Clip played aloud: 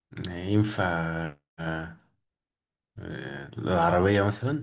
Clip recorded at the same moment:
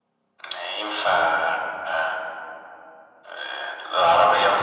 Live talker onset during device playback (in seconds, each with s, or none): none